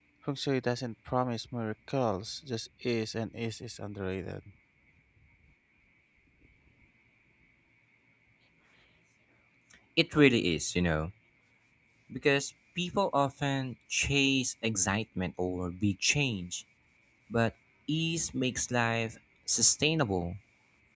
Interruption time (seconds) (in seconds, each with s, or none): none